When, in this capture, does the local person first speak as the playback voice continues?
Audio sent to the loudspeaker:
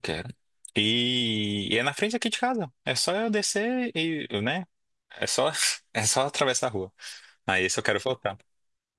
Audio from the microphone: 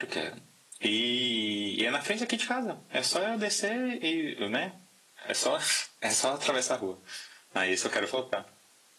none

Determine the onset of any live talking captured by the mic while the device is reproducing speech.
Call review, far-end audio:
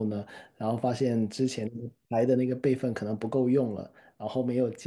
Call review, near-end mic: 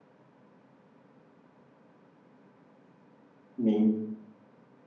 3.5 s

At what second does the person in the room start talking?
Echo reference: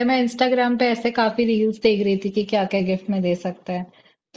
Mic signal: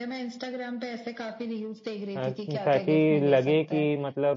2.2 s

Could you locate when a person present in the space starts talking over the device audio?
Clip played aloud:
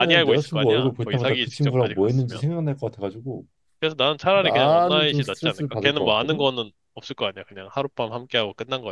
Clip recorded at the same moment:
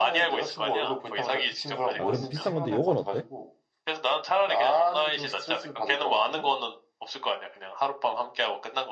2.0 s

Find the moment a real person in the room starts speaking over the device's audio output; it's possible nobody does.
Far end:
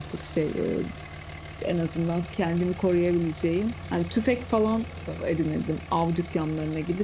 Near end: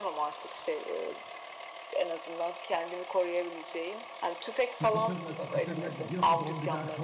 4.6 s

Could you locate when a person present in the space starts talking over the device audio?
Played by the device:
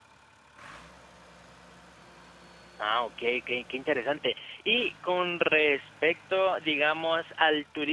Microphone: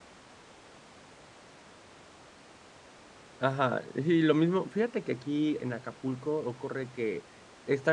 3.4 s

